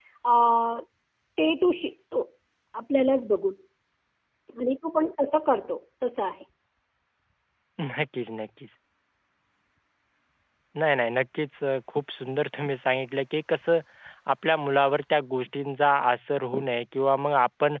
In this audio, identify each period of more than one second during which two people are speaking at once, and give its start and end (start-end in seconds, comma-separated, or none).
none